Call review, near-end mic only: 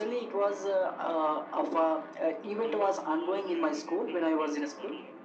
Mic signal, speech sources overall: both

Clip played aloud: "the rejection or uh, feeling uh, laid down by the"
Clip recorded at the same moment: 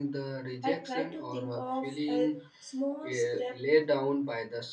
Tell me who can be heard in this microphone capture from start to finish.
both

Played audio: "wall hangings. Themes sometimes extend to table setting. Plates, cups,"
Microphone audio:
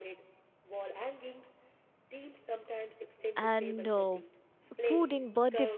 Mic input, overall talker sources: both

